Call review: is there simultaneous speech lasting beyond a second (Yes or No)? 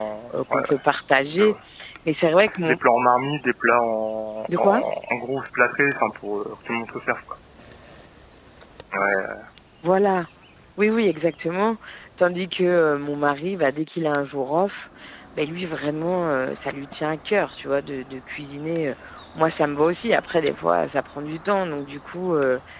No